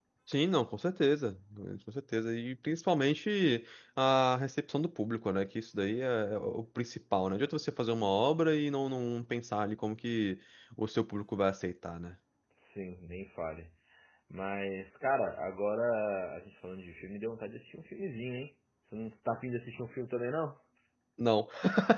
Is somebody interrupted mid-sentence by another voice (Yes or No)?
No